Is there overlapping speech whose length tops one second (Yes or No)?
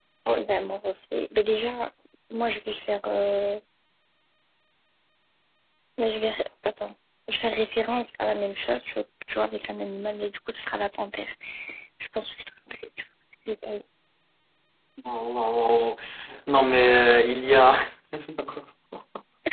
No